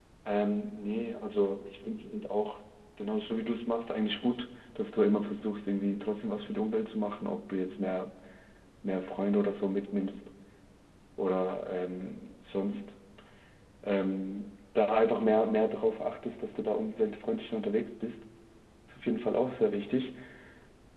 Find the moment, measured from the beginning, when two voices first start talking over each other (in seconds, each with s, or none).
none